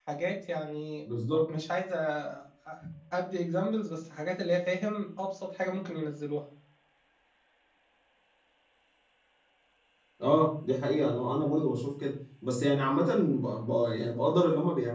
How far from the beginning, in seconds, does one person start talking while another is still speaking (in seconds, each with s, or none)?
none